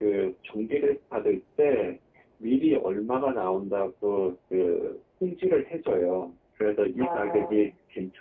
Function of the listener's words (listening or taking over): listening